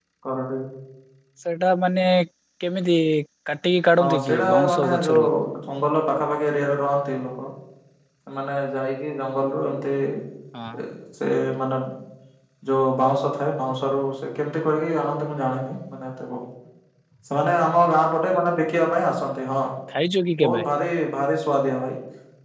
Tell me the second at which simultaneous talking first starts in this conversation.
4.0 s

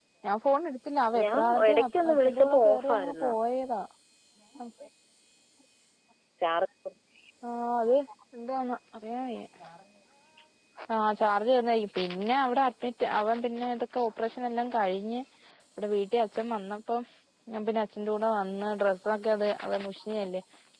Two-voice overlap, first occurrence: 1.2 s

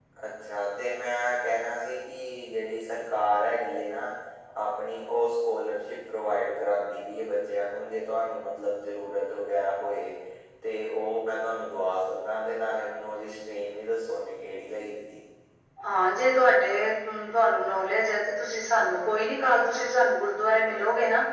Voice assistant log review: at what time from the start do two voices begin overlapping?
none

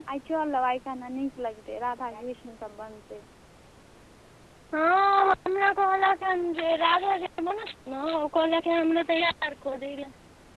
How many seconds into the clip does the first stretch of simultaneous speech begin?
none

